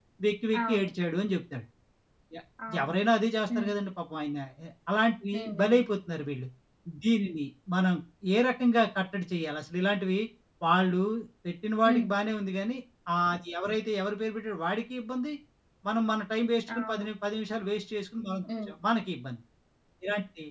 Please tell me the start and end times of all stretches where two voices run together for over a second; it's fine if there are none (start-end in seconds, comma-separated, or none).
none